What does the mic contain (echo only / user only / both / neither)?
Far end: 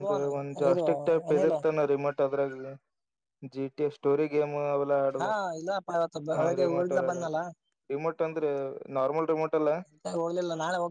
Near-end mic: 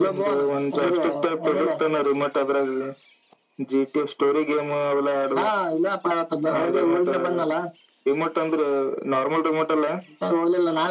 echo only